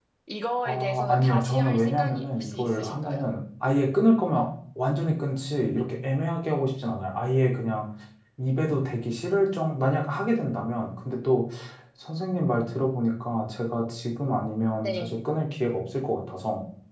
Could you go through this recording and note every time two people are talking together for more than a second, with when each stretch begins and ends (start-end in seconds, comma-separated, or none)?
0.6-3.2